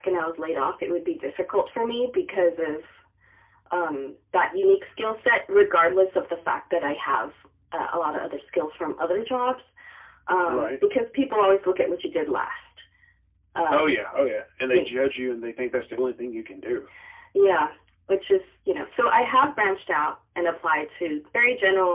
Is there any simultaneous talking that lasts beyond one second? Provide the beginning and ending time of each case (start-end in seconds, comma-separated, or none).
none